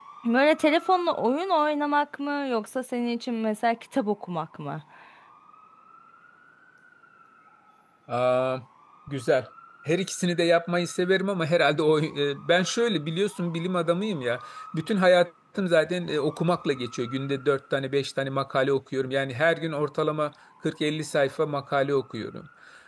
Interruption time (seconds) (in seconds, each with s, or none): none